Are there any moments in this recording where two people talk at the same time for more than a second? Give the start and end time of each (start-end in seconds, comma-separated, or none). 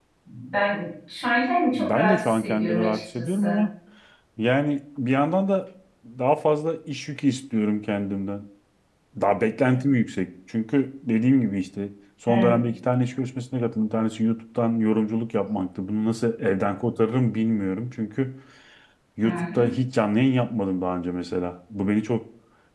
1.7-3.6